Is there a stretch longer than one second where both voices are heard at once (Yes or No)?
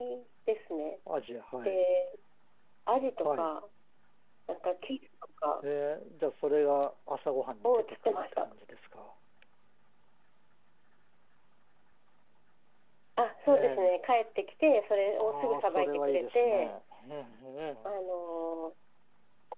Yes